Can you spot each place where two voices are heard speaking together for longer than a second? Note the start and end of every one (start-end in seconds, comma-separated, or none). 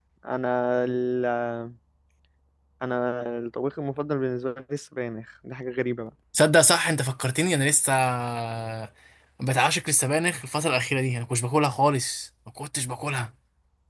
none